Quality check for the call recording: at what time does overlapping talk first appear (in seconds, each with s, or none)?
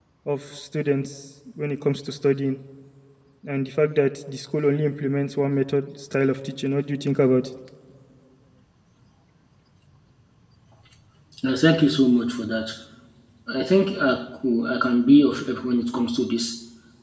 none